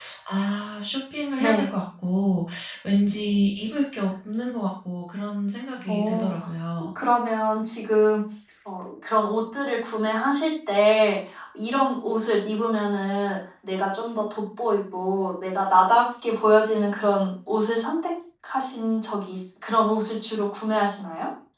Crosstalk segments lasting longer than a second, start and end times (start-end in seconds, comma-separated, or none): none